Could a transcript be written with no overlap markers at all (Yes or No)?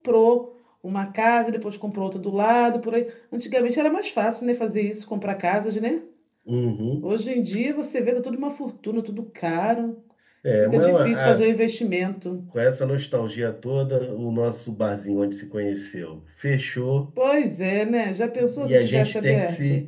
No